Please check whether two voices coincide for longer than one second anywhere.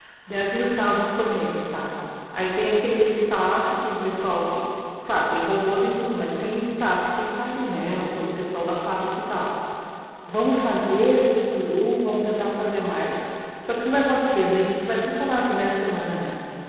No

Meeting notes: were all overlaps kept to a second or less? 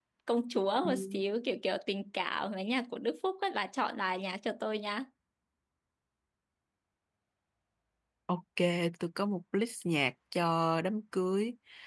Yes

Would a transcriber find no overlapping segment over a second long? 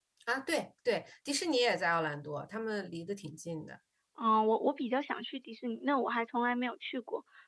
Yes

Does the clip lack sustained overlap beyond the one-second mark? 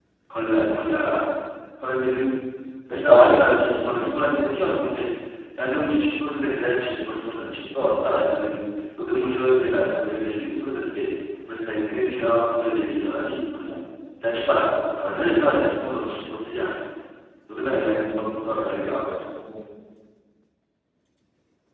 No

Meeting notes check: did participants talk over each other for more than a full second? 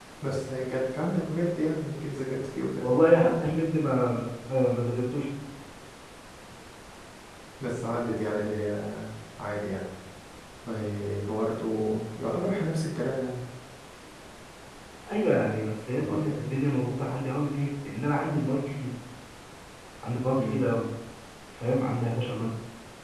No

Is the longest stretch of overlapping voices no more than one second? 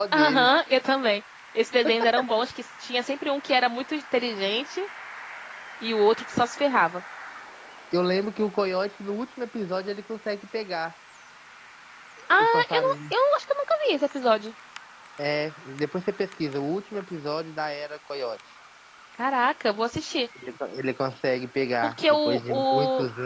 No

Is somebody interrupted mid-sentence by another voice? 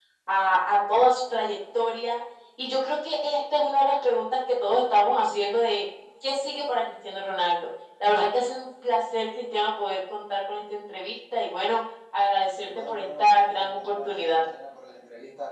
Yes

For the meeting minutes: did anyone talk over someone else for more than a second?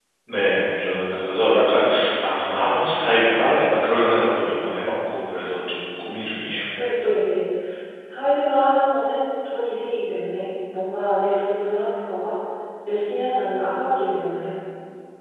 No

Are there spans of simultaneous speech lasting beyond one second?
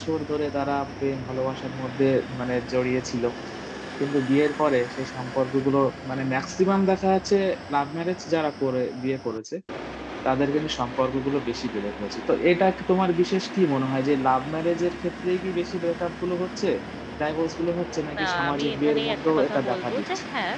Yes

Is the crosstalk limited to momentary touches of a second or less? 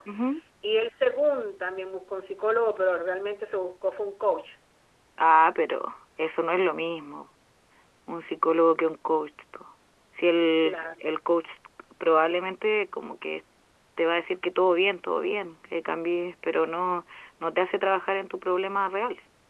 Yes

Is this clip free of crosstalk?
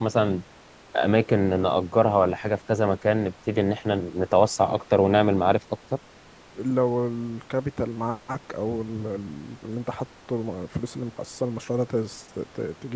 Yes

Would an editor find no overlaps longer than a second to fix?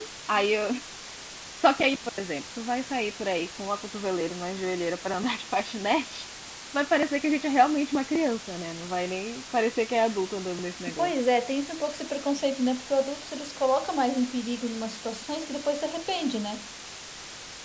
Yes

